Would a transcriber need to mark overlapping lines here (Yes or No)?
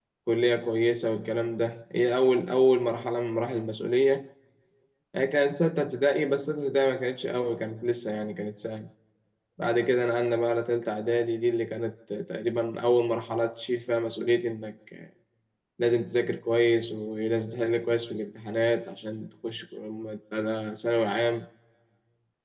No